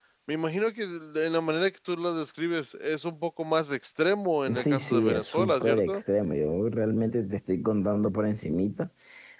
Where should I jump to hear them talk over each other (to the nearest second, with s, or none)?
4 s